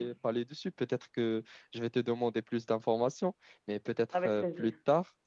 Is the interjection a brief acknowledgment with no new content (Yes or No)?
Yes